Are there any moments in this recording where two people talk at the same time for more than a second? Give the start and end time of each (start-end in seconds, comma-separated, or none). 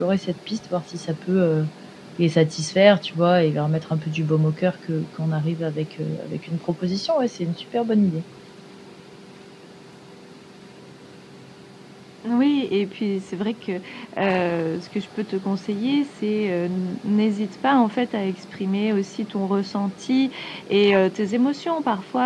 none